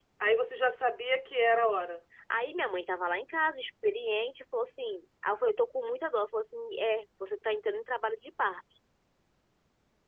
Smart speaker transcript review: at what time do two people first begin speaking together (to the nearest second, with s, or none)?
none